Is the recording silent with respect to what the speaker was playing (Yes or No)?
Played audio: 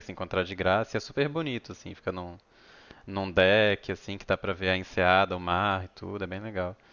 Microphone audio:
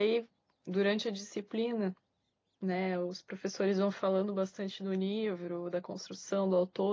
Yes